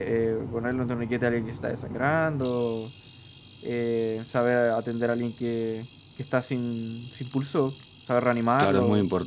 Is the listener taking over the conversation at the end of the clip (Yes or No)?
Yes